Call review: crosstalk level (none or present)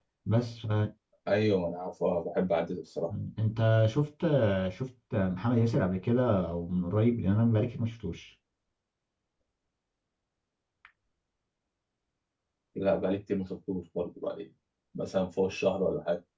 none